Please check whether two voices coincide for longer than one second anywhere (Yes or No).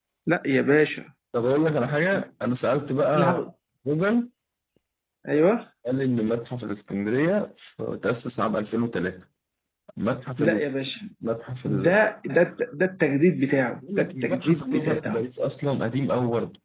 Yes